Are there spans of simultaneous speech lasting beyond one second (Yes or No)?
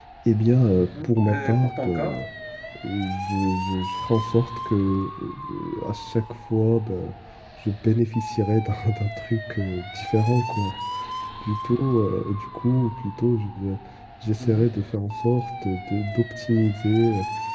Yes